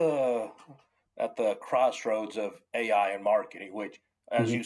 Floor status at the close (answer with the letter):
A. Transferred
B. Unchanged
B